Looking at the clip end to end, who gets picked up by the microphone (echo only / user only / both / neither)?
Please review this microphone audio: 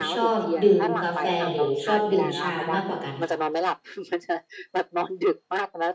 both